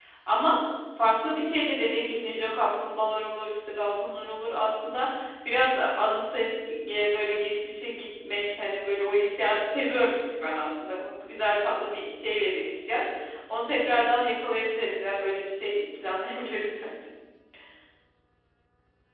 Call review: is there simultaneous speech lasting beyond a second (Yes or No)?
No